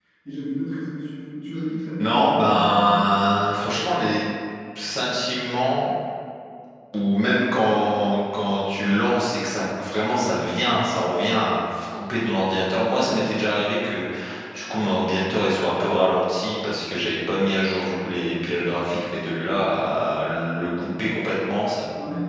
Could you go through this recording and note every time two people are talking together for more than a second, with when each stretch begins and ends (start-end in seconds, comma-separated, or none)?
2.0-3.3